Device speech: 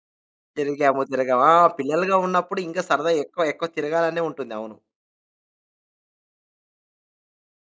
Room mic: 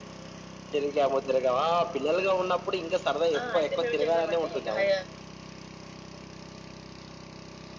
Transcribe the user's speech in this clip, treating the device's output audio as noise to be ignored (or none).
ఆ! అయితే మేమేంచేసామంటే, ఇగ హై